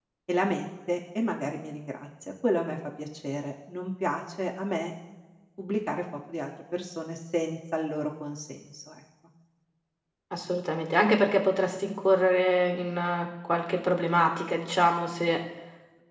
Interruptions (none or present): none